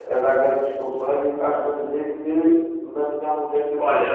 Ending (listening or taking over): taking over